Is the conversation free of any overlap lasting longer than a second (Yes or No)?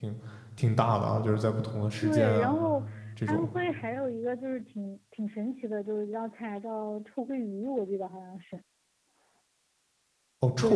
Yes